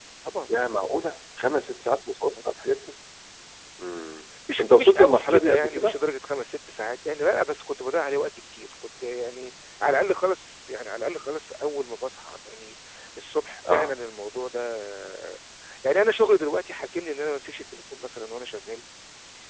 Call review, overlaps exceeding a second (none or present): present